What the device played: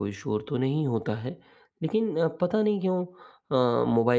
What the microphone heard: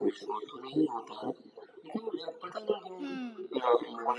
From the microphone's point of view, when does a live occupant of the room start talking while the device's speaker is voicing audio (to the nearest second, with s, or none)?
3 s